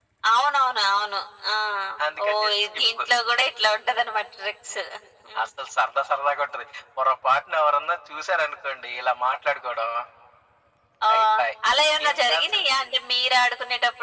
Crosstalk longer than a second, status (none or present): present